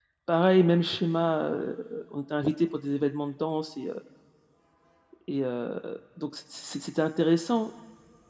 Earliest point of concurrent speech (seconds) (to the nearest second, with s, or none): none